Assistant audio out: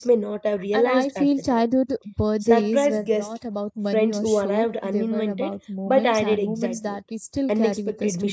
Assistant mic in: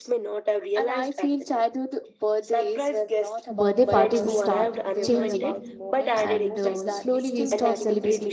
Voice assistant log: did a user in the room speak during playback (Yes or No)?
Yes